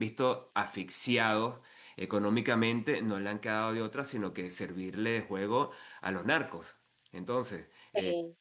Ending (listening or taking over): listening